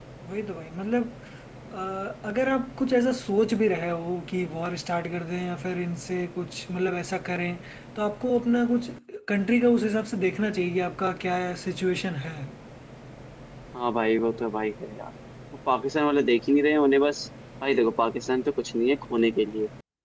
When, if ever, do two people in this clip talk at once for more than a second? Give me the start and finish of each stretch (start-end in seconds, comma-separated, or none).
none